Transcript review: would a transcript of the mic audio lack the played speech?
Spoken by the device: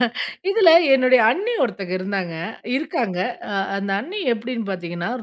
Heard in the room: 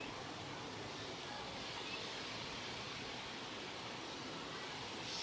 Yes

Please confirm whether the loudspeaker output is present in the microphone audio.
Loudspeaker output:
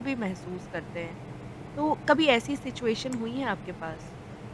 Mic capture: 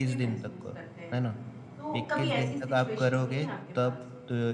Yes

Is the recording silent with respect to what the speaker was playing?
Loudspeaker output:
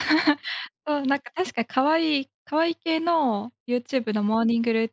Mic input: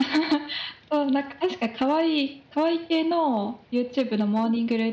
No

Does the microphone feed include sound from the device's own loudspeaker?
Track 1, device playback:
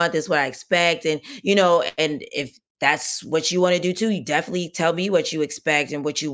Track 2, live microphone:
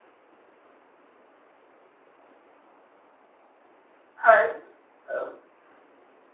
No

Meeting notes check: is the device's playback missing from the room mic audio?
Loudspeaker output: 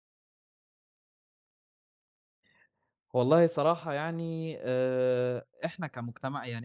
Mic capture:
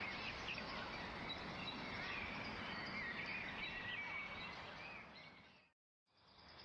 Yes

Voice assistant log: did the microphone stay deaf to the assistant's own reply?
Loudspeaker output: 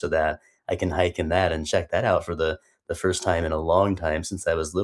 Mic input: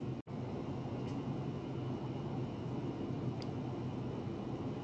Yes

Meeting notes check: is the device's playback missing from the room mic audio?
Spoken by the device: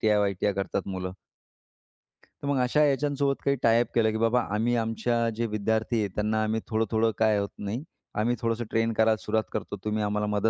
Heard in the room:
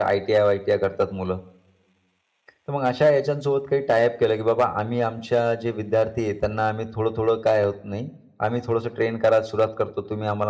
No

